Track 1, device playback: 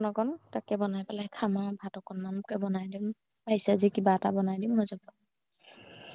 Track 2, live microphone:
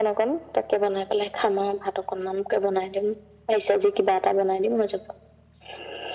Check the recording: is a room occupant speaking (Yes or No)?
No